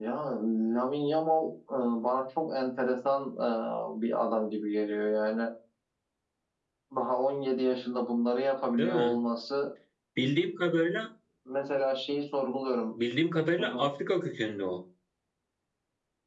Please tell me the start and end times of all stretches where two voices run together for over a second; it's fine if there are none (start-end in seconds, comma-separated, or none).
none